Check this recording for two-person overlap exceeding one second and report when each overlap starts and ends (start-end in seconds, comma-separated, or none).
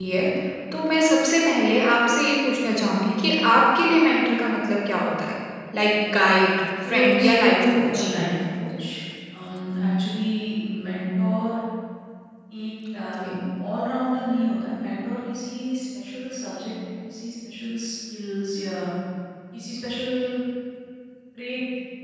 6.9-8.1